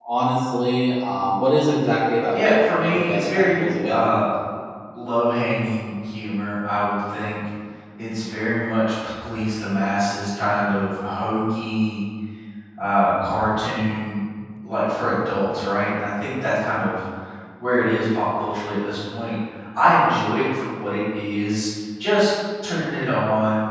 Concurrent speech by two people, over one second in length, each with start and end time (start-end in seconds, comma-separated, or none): 2.3-4.1